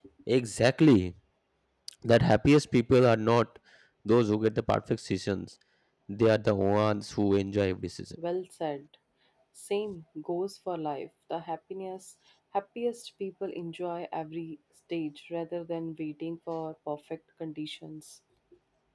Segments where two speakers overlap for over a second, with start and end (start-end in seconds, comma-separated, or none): none